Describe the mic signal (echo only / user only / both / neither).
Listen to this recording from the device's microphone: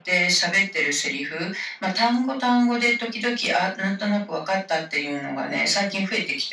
echo only